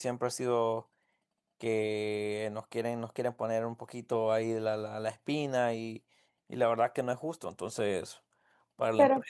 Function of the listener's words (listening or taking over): listening